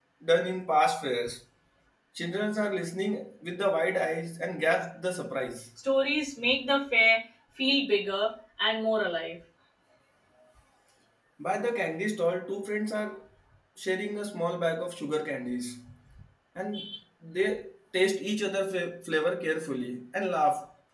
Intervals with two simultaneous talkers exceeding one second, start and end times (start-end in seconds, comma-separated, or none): none